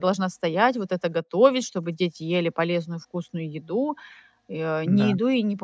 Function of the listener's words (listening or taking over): listening